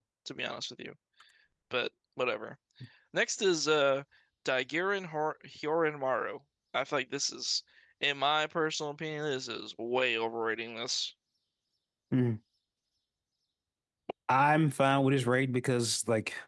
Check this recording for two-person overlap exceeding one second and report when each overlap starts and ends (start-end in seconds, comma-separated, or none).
none